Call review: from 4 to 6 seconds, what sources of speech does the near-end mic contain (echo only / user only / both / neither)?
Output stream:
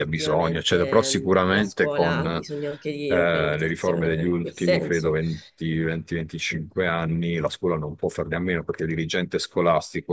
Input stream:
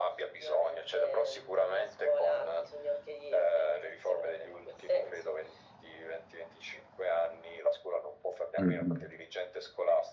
echo only